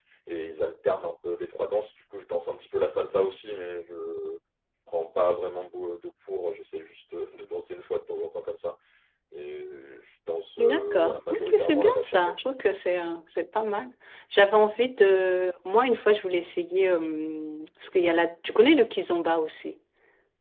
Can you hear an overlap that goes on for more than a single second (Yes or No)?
Yes